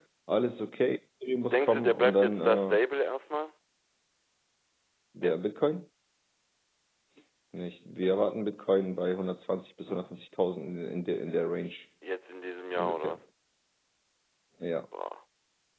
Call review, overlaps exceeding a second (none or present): present